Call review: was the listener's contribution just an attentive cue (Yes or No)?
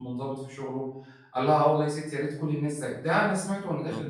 No